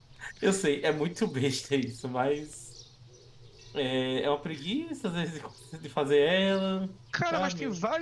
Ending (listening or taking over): taking over